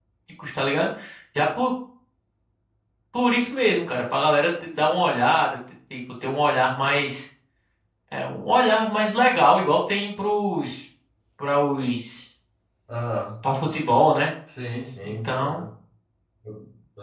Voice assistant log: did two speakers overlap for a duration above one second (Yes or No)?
No